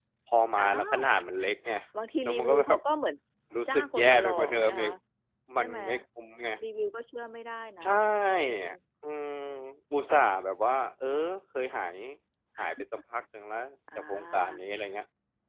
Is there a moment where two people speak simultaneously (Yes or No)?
Yes